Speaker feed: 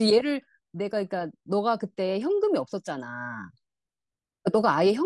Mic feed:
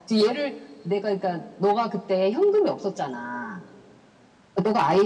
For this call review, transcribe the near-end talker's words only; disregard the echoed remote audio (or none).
none